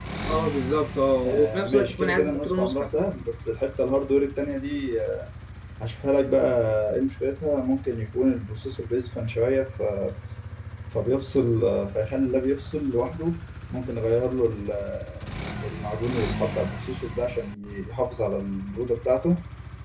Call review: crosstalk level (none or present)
present